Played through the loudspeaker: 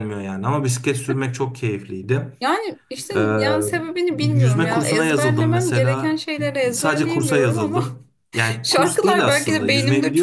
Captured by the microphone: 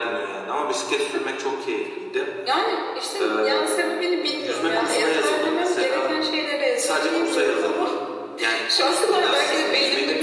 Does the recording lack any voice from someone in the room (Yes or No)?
Yes